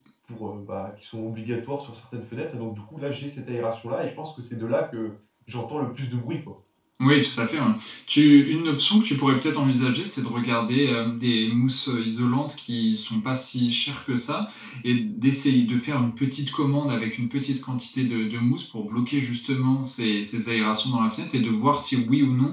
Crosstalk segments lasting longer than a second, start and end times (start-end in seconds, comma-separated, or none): none